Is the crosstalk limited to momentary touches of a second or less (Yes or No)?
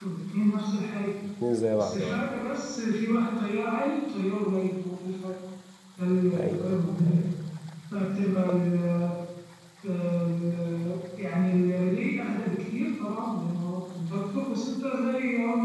Yes